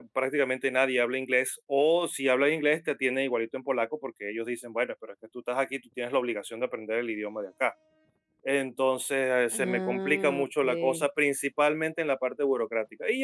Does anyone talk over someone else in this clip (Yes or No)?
Yes